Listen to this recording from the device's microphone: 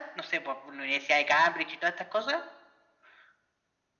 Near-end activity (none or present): none